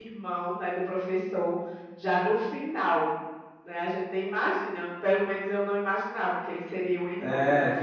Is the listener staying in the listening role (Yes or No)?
No